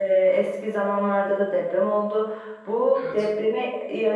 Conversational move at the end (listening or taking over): listening